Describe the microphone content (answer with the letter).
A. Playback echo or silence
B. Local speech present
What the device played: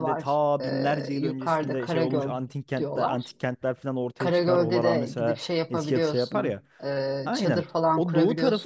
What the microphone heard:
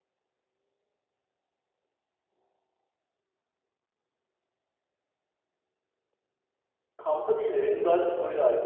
B